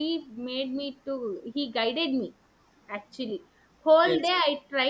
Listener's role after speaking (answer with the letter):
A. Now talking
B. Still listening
B